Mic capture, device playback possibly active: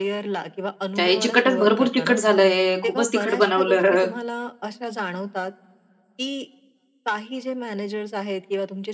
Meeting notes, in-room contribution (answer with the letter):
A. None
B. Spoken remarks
B